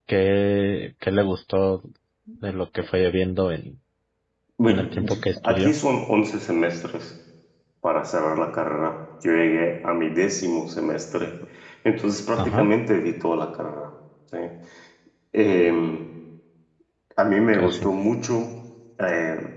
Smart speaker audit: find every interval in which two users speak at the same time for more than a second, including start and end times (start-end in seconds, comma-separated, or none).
none